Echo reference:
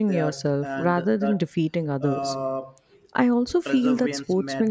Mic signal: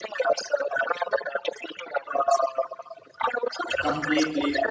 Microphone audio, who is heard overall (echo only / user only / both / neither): both